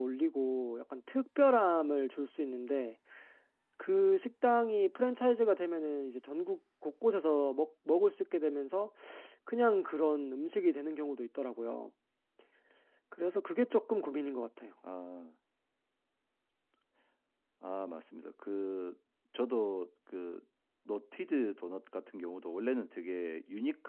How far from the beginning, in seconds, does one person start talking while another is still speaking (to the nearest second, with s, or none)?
none